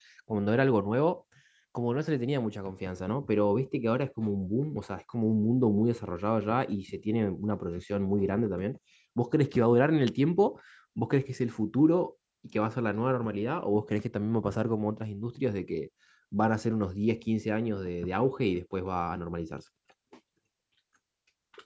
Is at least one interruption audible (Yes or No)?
No